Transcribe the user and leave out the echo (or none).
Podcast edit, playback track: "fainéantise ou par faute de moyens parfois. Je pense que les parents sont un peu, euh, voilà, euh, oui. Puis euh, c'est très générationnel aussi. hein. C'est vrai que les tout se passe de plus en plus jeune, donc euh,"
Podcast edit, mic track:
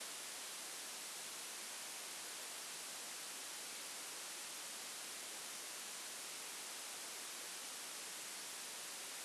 none